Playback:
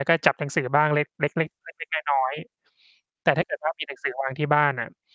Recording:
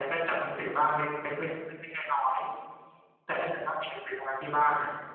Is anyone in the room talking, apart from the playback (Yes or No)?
No